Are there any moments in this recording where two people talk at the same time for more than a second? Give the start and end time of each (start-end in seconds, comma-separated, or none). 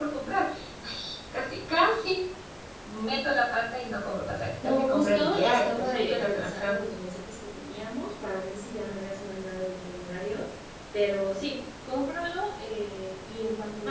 4.6-6.7